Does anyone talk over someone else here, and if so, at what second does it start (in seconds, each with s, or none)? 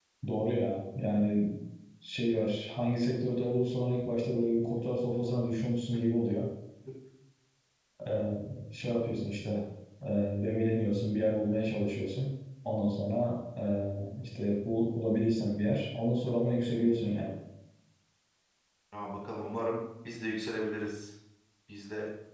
none